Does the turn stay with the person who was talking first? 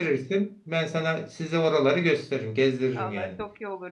No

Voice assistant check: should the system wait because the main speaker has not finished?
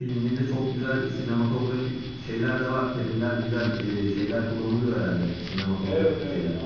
No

